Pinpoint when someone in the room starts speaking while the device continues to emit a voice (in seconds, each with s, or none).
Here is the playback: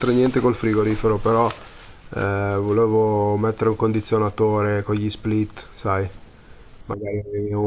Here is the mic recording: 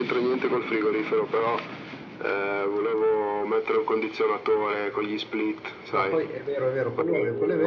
5.9 s